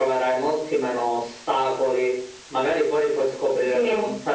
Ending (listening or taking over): listening